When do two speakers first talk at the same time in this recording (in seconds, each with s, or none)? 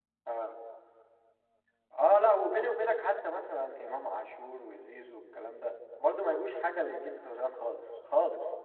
none